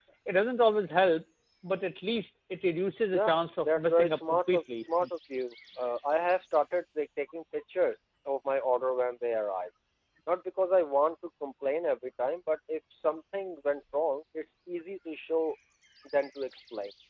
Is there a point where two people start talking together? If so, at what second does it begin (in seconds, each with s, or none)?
3.1 s